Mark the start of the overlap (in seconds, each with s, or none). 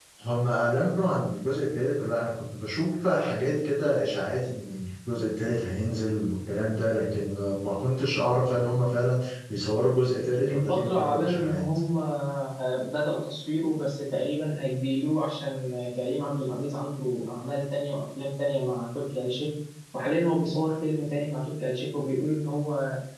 10.3 s